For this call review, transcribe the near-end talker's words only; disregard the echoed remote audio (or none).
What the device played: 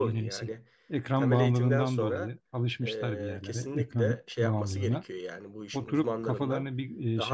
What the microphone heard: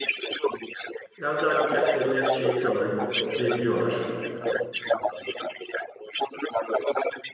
Biraz daha dikkatlerini şey yapıyorlar, toplayabiliyorlar.